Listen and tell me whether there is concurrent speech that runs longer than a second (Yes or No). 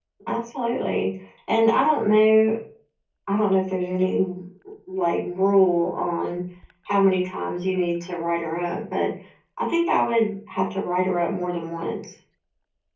No